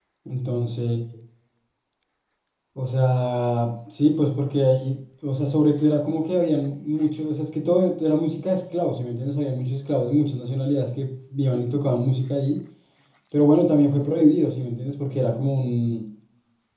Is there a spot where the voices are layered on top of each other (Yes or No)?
No